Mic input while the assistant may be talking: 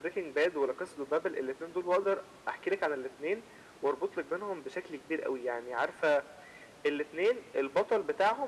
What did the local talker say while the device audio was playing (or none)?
none